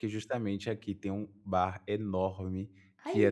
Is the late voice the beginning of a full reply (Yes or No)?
No